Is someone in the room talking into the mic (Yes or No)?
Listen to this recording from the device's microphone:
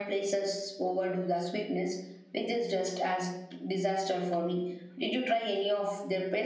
No